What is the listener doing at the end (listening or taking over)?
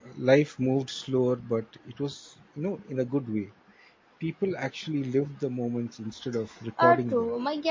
taking over